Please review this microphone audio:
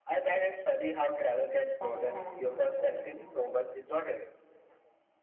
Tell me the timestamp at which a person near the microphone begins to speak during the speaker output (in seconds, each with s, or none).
1.8 s